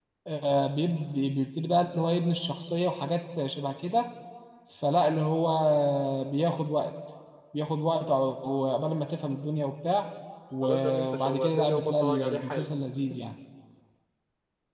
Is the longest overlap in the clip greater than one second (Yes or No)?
Yes